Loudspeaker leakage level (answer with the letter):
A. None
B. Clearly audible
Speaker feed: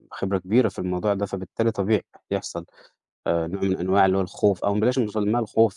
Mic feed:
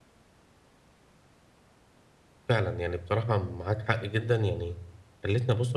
A